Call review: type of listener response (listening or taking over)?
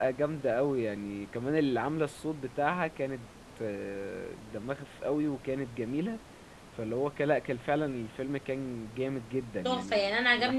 taking over